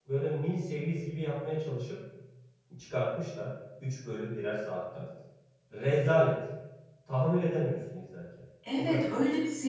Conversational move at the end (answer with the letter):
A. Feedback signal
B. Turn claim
B